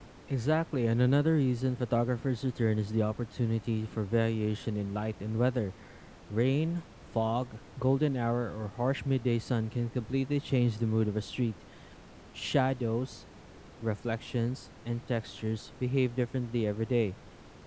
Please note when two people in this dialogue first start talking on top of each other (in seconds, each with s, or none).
none